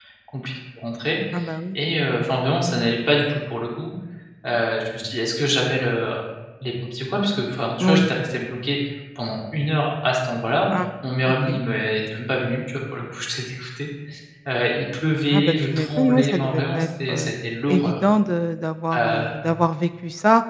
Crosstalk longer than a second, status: present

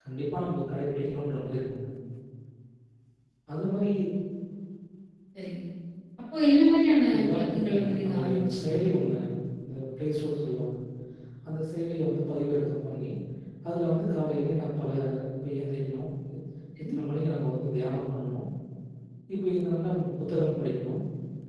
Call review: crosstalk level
present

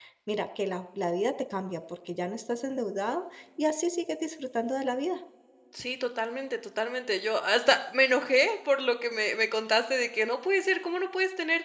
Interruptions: none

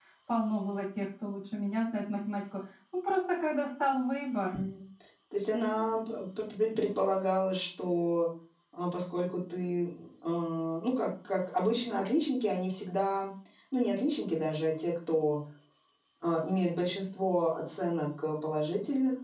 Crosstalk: none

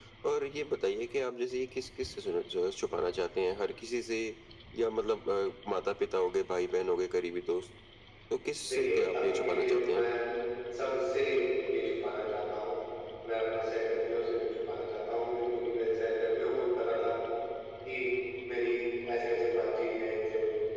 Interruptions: present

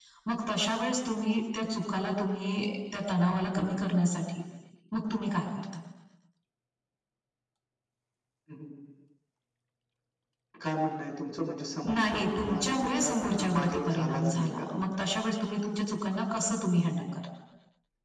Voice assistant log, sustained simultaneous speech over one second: present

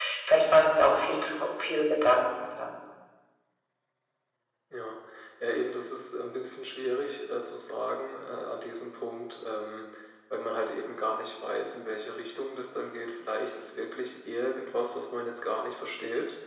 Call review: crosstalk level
none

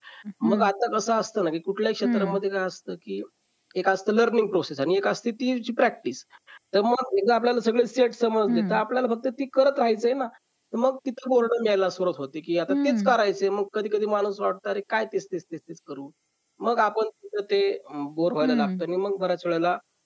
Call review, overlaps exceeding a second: none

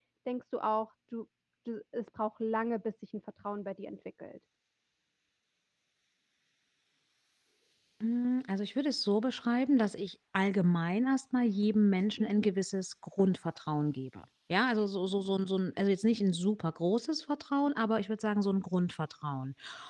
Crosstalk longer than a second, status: none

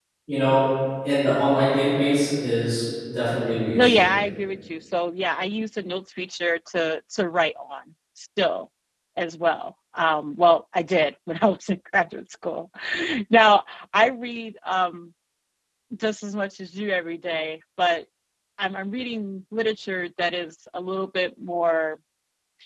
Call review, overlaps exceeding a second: none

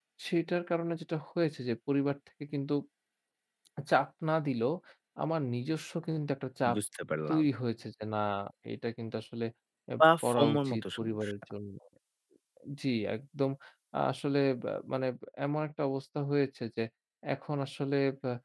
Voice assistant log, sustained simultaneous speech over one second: present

